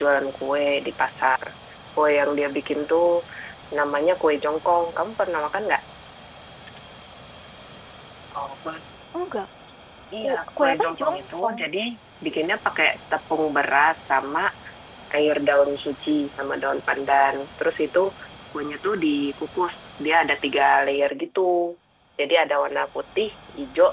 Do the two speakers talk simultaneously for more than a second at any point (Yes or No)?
Yes